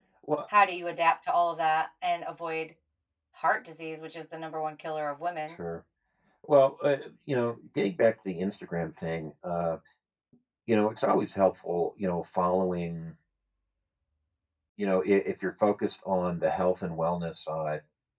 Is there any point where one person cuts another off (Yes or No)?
No